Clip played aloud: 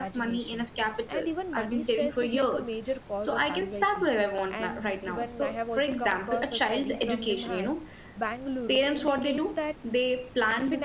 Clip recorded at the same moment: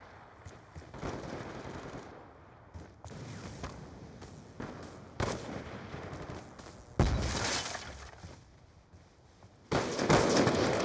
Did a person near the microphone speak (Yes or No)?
No